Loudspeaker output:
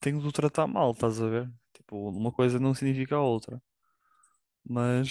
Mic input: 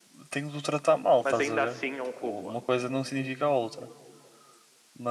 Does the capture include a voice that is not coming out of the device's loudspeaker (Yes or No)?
Yes